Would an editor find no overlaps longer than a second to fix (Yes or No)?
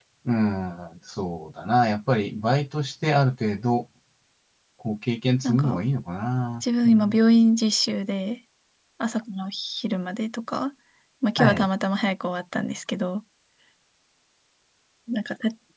Yes